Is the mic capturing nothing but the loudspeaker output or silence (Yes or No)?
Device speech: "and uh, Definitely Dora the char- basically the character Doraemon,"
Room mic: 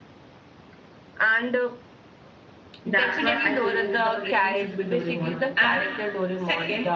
No